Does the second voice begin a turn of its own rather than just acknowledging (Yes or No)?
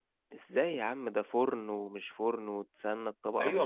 Yes